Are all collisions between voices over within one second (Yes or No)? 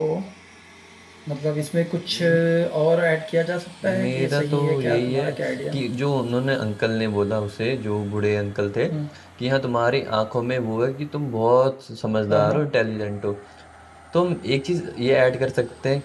No